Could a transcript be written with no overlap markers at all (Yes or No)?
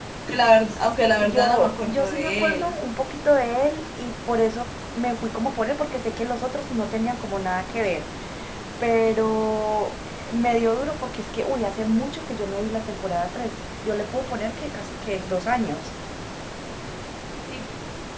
No